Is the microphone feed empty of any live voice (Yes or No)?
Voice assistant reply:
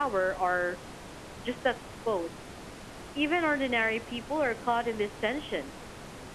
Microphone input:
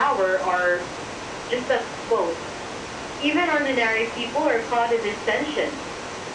Yes